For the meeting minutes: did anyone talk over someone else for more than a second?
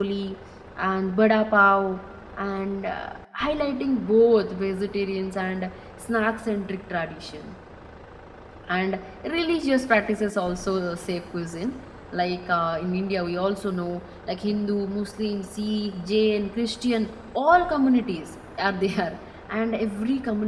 No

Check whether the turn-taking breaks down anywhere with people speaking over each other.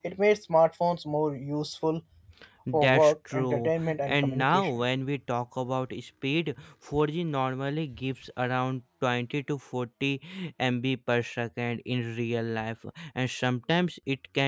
Yes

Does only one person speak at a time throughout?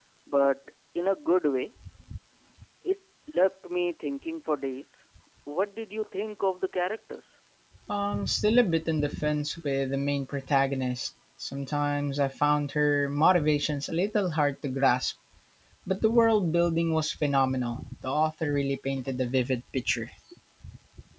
Yes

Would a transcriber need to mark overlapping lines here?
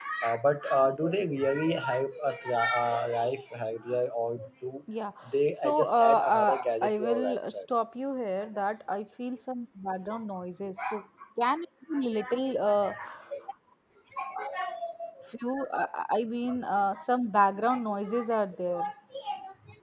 Yes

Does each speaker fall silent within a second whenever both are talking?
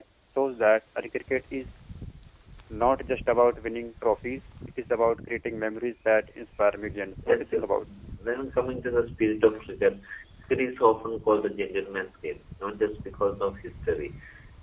Yes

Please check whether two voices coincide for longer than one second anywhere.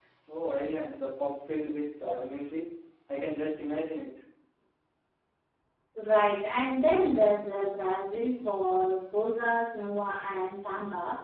No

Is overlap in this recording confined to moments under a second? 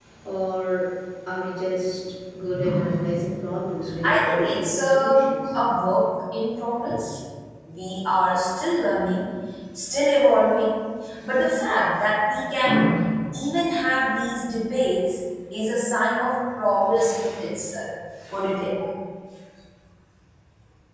No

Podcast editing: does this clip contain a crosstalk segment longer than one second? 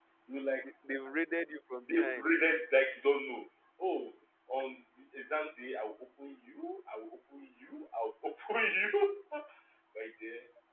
No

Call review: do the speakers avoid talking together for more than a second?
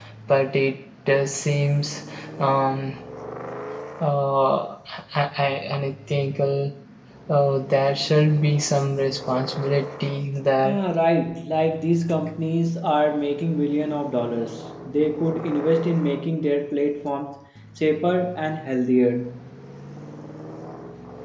Yes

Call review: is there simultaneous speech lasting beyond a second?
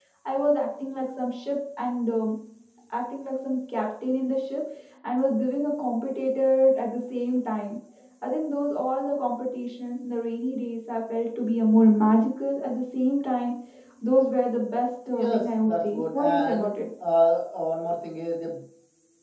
Yes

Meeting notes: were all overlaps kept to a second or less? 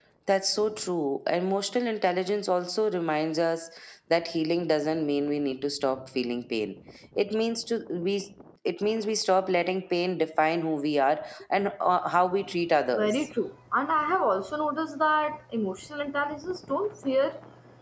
Yes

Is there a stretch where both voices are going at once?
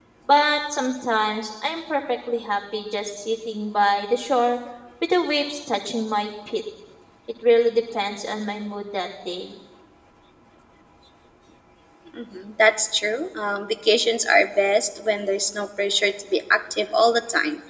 No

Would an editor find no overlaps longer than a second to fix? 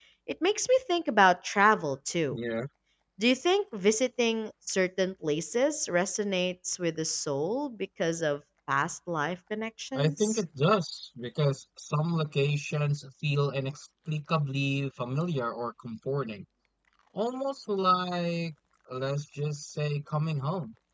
Yes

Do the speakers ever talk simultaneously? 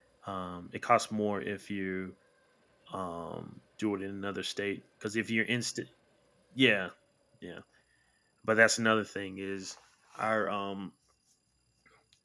No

